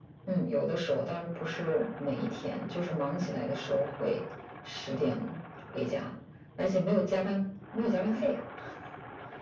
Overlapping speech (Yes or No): No